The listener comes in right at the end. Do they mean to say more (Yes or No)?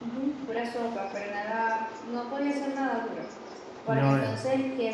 No